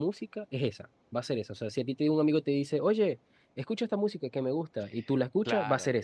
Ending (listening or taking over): taking over